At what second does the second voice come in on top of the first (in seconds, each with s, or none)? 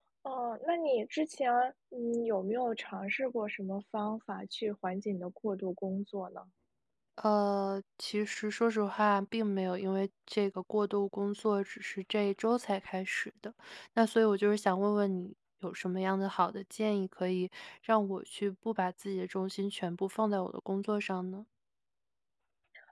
none